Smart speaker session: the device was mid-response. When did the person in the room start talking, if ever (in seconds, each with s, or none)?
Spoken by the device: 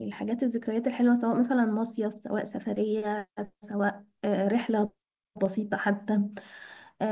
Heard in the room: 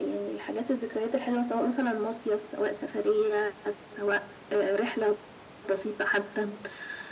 none